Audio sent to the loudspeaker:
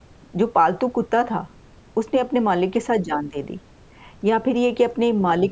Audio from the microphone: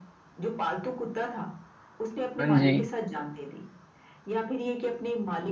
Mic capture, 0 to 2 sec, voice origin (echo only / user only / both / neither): echo only